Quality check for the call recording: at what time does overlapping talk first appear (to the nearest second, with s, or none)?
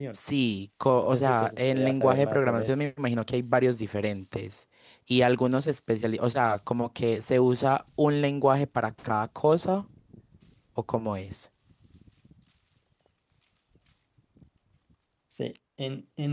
1 s